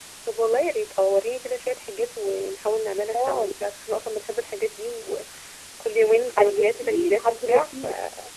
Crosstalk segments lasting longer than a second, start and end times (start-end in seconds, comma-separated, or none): 6.4-7.8